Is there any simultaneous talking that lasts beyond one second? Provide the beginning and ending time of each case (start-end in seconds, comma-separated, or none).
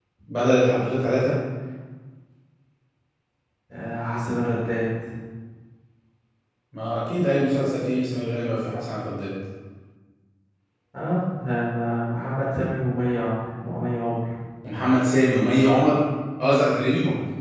none